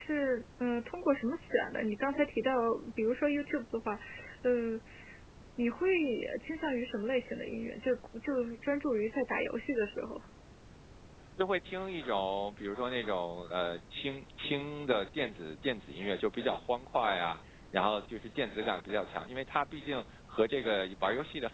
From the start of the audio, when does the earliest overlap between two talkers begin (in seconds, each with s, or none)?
none